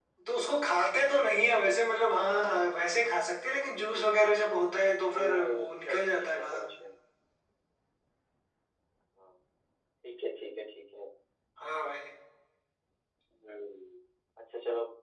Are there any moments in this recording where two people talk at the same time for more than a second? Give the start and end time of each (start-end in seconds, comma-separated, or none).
5.1-6.7